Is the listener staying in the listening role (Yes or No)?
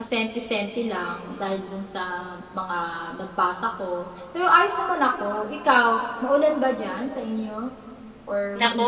No